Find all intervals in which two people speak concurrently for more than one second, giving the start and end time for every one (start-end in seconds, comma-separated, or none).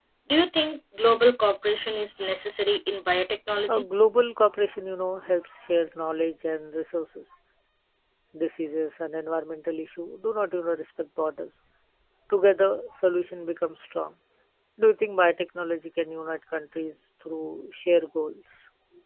none